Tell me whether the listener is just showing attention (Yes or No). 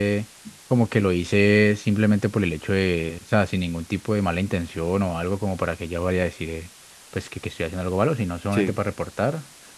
Yes